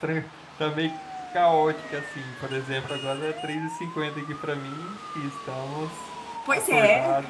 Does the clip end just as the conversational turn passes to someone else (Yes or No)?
Yes